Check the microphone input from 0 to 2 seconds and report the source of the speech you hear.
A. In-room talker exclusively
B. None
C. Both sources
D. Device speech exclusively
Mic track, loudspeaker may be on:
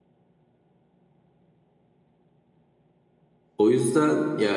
B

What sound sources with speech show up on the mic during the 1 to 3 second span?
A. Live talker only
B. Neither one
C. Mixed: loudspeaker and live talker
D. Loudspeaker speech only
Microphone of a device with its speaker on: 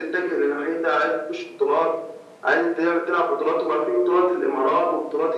D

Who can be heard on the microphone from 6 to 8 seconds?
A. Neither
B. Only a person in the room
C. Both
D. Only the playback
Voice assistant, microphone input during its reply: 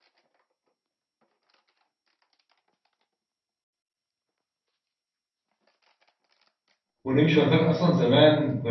B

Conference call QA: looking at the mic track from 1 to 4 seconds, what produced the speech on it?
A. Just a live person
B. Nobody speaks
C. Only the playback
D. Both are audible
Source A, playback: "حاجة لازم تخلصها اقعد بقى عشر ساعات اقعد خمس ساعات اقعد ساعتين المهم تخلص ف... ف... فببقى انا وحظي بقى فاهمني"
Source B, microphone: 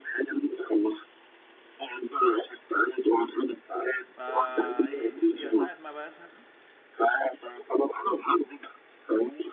C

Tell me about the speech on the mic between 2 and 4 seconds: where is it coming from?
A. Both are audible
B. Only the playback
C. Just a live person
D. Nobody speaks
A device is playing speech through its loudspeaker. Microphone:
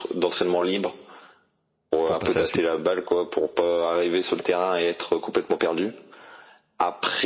A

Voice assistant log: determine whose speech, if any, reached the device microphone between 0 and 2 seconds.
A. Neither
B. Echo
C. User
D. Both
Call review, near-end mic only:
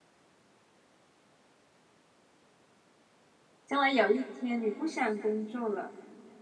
A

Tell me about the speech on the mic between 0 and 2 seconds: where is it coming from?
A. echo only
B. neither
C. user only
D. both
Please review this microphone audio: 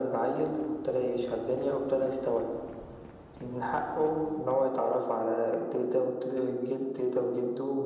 A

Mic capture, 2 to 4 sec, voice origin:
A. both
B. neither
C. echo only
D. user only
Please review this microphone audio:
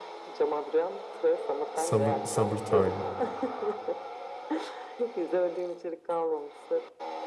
A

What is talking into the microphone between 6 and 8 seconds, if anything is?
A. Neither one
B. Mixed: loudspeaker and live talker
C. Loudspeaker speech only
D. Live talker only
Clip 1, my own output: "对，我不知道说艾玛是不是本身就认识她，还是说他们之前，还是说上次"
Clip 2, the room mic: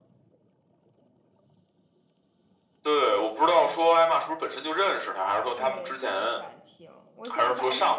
B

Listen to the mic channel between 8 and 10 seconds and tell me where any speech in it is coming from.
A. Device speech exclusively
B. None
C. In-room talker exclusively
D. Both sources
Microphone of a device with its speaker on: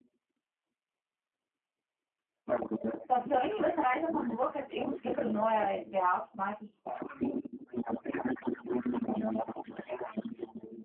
A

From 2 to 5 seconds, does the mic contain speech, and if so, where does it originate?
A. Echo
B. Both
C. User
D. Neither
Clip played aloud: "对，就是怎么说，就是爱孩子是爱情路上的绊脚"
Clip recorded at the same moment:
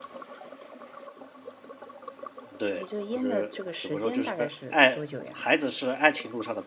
B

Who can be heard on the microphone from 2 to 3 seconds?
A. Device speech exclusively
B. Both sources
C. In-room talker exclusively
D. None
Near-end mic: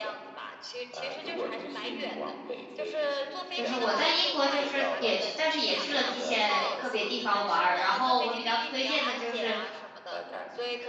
A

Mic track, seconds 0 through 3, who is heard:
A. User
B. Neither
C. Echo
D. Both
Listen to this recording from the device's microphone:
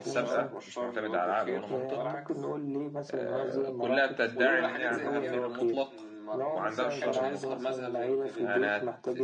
D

